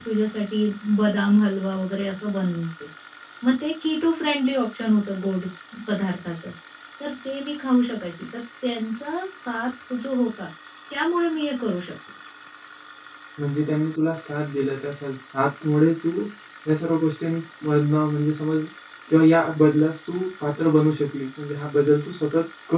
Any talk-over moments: No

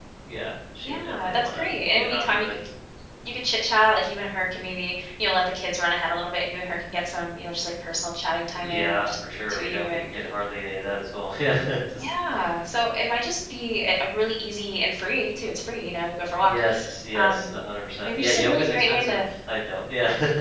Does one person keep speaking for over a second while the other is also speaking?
Yes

